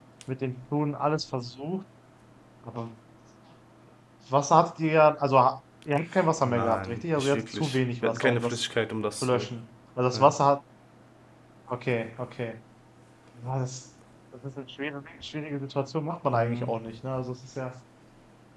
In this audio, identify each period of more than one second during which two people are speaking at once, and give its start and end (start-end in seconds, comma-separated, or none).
6.4-8.6